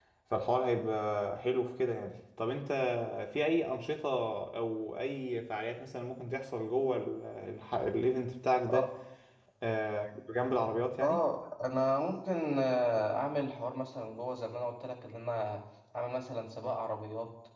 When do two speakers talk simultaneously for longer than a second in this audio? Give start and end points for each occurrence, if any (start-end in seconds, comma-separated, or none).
none